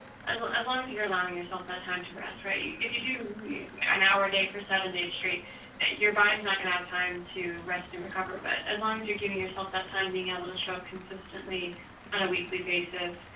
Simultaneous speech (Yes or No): No